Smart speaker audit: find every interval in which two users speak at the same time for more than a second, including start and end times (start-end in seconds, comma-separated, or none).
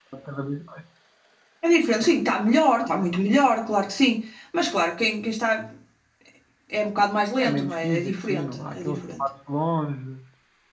7.4-9.3